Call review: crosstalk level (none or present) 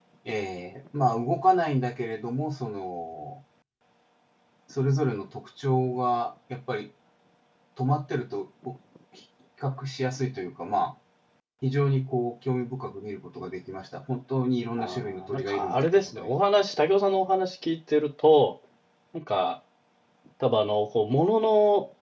present